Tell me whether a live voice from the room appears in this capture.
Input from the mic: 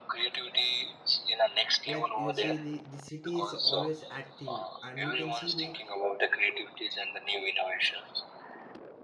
Yes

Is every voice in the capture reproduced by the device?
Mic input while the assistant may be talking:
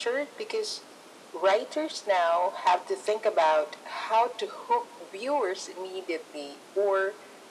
Yes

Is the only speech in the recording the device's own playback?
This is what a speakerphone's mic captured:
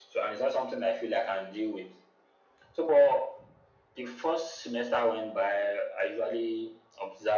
Yes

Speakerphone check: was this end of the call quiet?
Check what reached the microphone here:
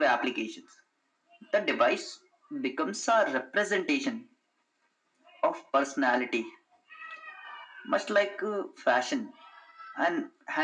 Yes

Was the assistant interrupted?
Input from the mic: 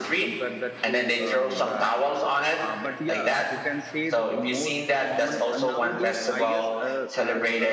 Yes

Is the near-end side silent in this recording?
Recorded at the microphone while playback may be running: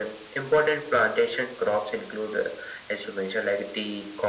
Yes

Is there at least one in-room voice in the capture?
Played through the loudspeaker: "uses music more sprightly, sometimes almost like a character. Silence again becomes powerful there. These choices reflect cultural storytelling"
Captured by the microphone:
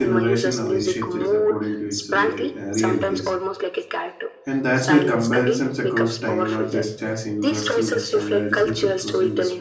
Yes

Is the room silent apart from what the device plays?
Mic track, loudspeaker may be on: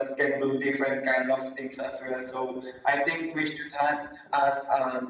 Yes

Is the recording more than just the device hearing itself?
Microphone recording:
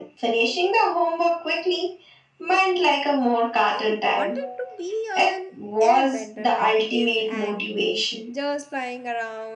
Yes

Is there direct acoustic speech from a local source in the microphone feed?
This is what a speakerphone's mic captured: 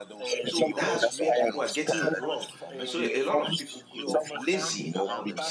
Yes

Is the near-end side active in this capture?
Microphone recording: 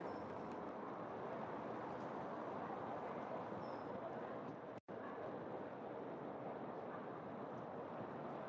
No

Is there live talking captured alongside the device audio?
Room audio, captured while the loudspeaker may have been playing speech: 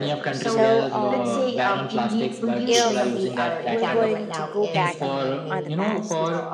Yes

